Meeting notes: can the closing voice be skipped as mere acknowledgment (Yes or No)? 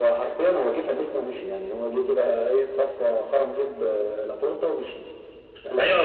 No